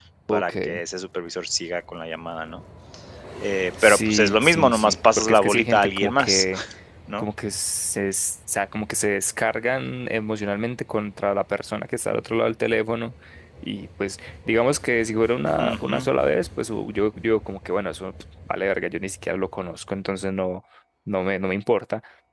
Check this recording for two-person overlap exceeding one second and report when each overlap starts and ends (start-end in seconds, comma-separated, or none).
3.8-6.5